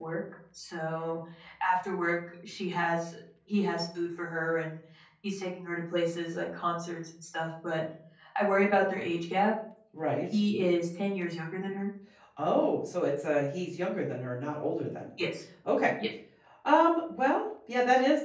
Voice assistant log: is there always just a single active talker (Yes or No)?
Yes